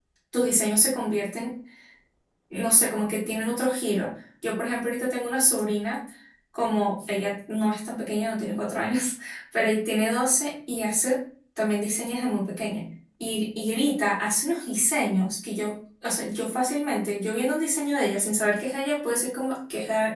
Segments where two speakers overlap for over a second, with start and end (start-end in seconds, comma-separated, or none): none